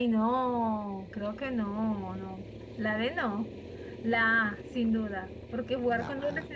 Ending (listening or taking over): listening